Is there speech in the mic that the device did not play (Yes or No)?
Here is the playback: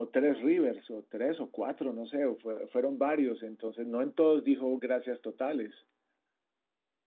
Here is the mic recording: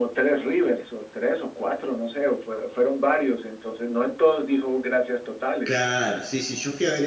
Yes